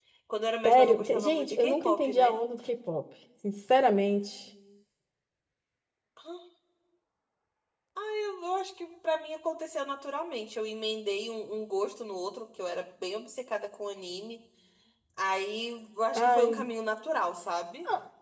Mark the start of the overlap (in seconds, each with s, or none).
0.7 s